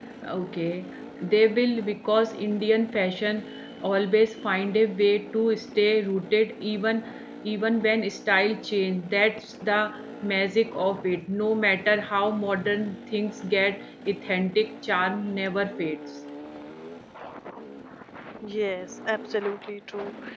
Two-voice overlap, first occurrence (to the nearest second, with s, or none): none